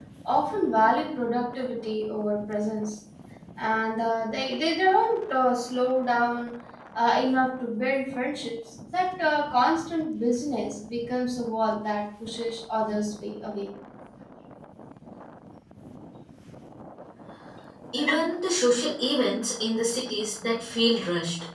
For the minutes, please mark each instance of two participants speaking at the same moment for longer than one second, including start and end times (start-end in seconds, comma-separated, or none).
none